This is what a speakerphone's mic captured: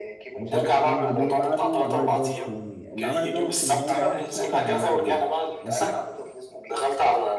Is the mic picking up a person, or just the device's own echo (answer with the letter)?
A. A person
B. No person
A